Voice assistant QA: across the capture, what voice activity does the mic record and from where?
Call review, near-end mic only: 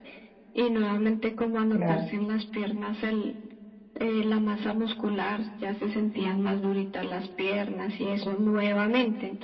both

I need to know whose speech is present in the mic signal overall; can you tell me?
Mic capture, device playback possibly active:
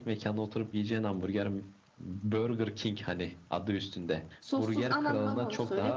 both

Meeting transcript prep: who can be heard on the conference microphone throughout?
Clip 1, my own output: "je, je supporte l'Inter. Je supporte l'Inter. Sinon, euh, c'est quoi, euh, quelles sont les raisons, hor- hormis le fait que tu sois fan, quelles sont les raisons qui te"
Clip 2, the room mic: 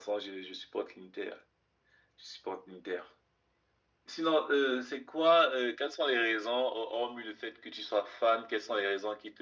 echo only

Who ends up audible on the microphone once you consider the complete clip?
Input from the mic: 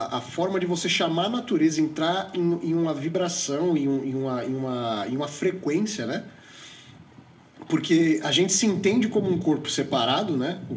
echo only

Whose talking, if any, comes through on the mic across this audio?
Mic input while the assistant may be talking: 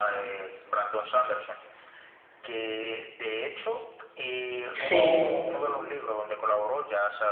both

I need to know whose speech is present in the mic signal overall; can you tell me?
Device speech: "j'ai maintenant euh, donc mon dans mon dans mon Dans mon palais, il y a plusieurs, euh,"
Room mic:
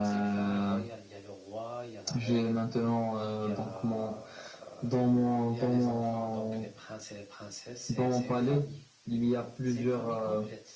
both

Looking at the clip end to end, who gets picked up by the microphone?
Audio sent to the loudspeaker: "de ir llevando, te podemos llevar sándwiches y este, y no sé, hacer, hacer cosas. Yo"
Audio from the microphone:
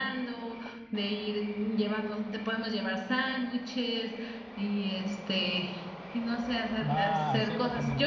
both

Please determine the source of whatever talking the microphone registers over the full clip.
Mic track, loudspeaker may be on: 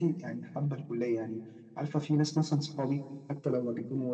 echo only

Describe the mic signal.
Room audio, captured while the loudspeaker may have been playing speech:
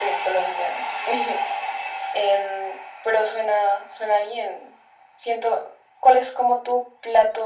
echo only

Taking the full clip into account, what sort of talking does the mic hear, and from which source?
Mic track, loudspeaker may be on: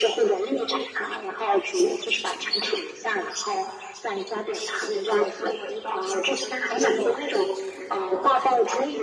echo only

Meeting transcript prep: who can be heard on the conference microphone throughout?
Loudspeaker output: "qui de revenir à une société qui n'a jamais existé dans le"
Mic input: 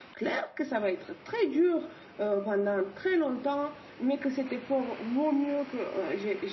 user only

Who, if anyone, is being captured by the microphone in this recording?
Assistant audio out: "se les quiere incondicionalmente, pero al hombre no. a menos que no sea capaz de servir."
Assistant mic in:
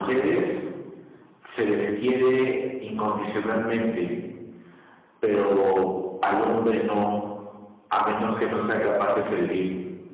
echo only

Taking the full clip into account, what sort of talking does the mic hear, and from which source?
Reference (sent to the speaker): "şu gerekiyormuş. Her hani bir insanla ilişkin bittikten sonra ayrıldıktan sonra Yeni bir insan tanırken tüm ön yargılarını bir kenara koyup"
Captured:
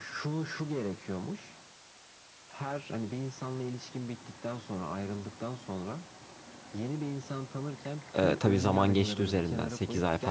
both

